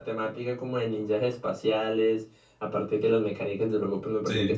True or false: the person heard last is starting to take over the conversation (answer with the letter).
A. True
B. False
A